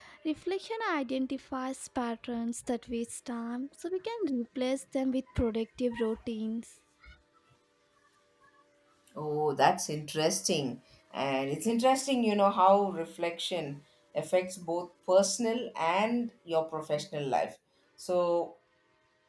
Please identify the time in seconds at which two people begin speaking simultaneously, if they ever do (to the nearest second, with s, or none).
none